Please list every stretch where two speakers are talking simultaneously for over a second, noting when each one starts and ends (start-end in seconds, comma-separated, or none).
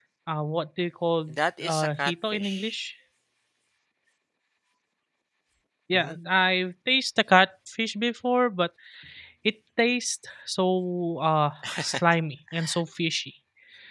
1.3-2.8